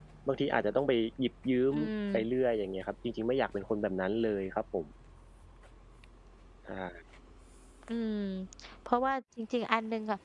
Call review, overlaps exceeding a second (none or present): none